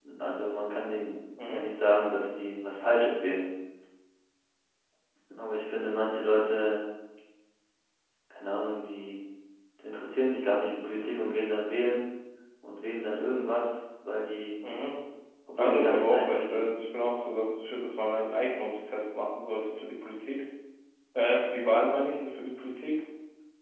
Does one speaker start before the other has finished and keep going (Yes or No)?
Yes